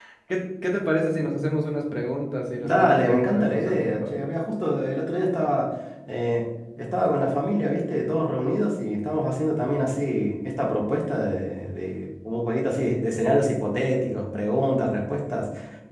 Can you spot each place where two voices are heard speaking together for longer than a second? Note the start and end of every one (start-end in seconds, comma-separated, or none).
2.6-4.0